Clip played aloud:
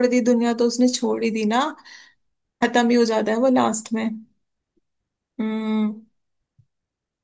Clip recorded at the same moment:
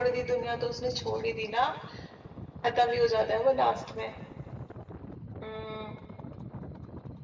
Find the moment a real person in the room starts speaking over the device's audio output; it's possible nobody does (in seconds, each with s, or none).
none